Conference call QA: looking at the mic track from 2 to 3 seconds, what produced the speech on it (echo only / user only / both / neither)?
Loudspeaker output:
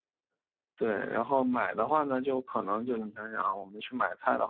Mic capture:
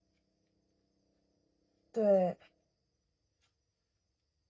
user only